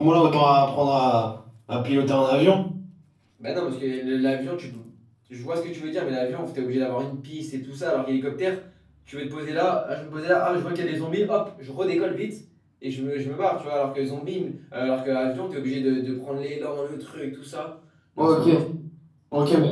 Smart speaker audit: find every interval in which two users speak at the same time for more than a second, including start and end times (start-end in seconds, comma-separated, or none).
none